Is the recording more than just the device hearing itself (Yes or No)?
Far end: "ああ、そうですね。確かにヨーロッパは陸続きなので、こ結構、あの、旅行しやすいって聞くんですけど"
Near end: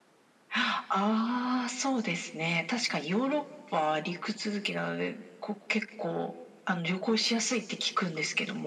No